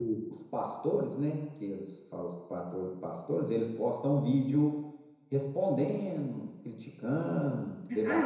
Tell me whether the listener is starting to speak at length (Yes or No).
Yes